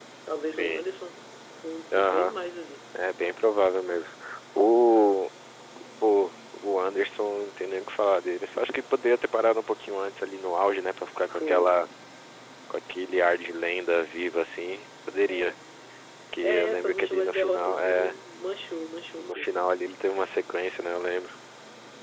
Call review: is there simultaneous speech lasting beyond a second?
Yes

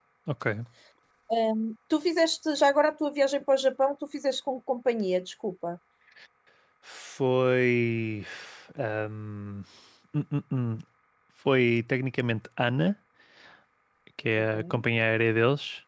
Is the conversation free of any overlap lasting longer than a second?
Yes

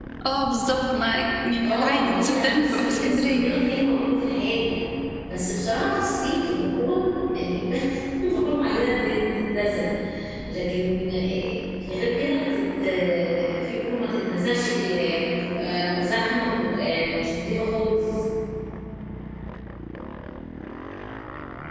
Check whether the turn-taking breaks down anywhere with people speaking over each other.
Yes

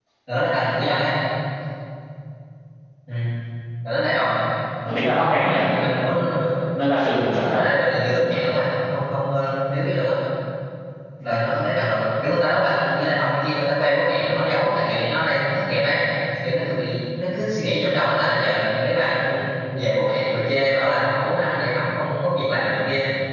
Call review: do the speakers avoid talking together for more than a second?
Yes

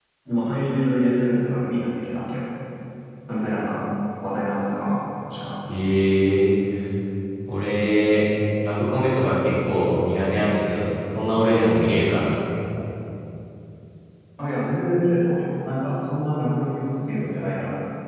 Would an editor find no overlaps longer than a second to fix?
Yes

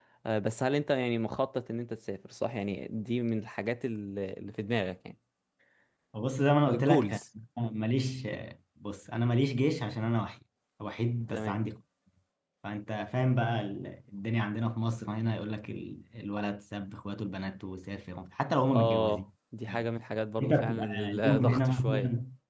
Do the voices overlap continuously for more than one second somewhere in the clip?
Yes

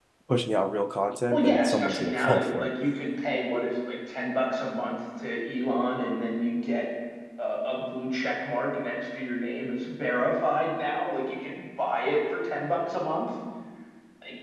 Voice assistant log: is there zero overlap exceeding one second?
No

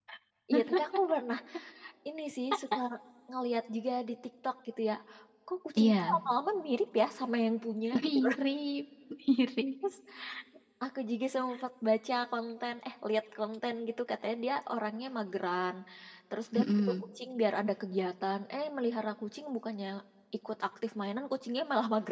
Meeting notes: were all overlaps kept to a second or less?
Yes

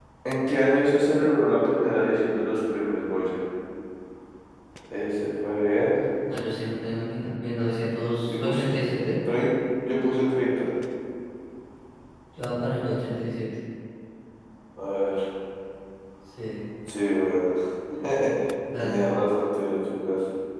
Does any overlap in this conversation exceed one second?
No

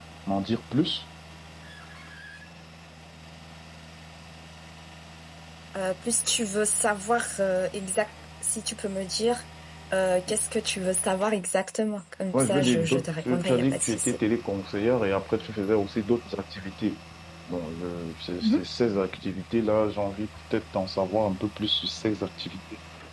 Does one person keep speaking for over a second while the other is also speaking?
Yes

